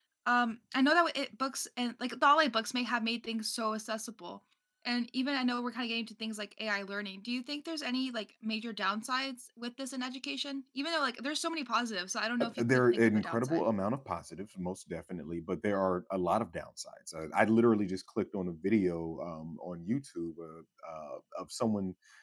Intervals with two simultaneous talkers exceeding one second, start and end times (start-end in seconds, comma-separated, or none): 12.4-13.6